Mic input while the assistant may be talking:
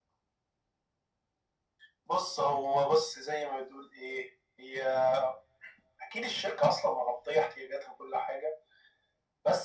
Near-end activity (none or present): none